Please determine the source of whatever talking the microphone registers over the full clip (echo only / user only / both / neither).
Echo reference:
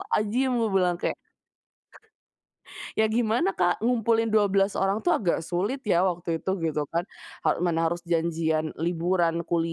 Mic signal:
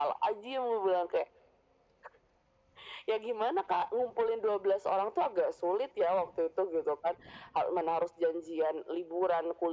echo only